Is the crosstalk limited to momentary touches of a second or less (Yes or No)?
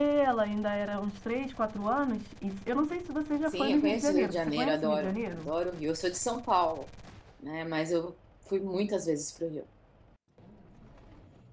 No